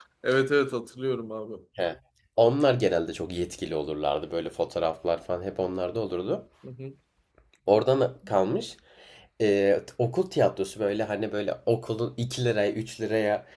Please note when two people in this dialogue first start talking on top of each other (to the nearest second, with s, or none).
none